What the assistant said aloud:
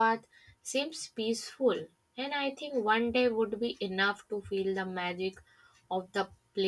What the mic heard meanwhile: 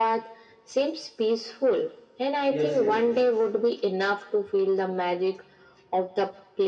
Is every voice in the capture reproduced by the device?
No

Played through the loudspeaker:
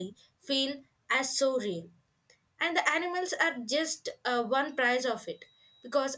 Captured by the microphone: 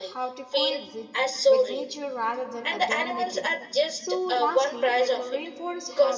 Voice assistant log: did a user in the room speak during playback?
Yes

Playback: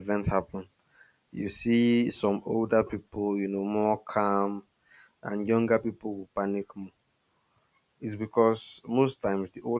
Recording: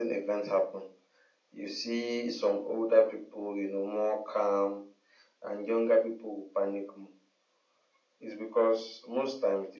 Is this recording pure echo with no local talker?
Yes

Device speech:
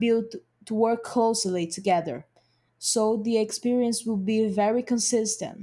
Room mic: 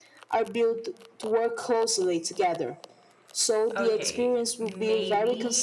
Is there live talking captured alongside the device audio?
Yes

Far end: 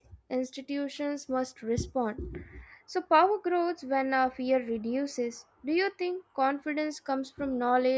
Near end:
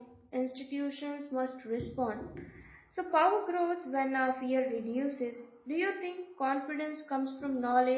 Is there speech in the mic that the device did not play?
No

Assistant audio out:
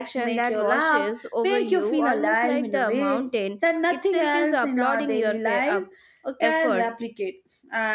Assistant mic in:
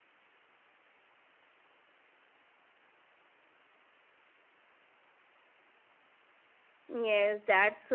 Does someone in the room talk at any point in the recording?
Yes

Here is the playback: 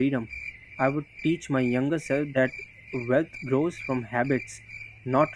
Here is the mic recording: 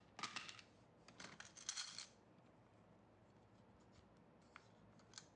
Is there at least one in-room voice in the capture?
No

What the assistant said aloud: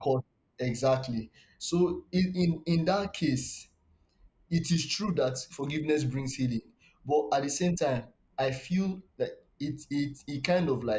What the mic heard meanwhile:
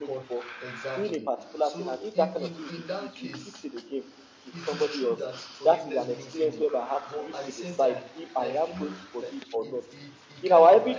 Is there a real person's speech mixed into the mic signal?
Yes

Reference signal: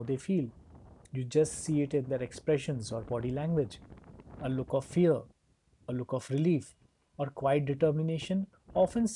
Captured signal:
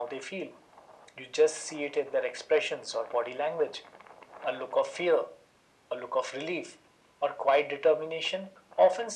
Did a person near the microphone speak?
No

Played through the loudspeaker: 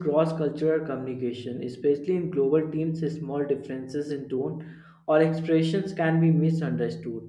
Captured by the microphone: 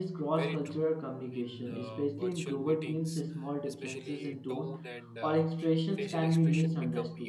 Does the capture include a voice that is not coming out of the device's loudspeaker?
Yes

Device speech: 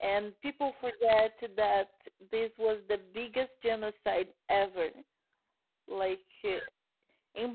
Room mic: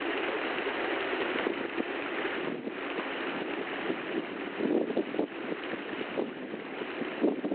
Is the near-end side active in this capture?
No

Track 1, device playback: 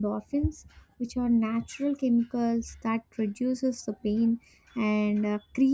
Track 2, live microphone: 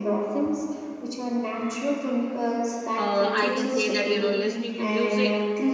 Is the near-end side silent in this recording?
No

